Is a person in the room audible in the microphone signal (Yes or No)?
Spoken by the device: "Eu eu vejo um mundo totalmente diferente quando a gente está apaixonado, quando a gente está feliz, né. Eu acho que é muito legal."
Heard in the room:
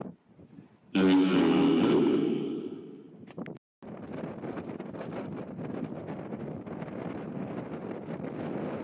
Yes